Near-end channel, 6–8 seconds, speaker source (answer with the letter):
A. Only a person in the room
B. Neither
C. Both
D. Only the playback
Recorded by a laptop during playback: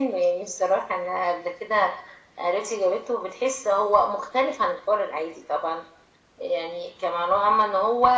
D